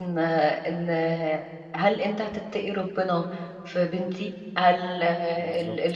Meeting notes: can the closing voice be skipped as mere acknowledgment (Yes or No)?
Yes